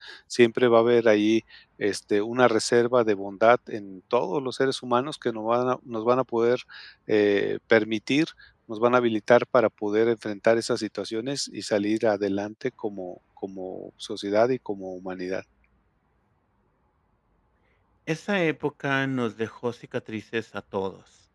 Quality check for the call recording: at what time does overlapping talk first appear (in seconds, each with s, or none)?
none